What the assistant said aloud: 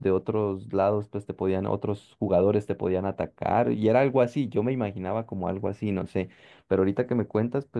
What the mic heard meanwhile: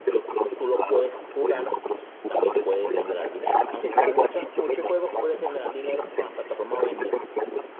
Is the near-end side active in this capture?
Yes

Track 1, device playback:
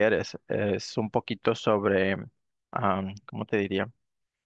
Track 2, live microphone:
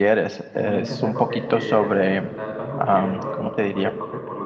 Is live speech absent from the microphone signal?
No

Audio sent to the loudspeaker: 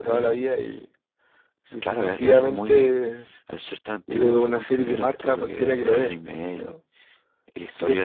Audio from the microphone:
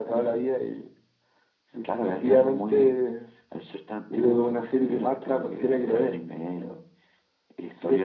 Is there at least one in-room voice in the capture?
No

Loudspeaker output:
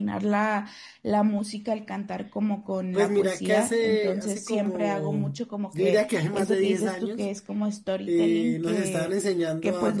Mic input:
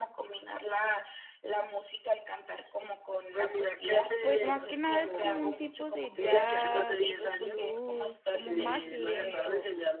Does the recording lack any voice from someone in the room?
No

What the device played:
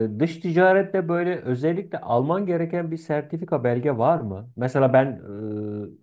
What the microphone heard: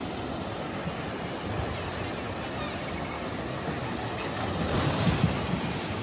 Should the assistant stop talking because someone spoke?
No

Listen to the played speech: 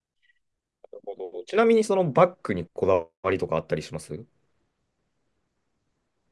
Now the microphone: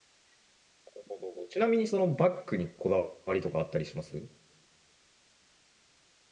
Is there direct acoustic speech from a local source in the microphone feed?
No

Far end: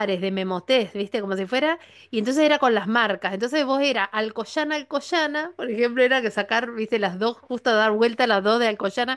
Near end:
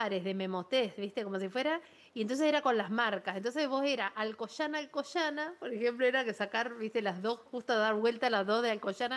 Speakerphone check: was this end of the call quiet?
Yes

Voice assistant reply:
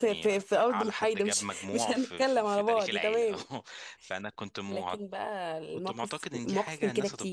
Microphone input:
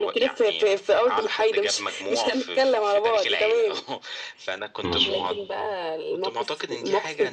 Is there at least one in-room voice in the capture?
Yes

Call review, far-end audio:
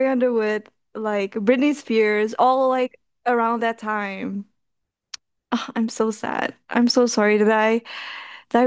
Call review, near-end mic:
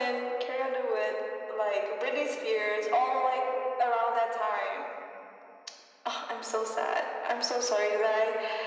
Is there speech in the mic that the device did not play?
No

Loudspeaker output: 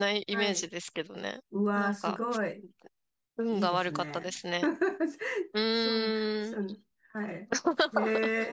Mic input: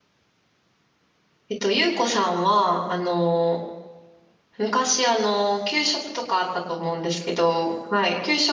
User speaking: Yes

